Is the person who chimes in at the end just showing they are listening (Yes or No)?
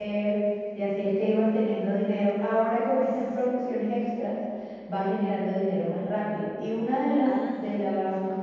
Yes